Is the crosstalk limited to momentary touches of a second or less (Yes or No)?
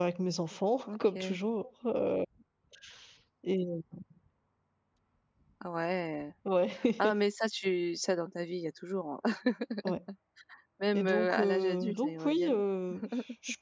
No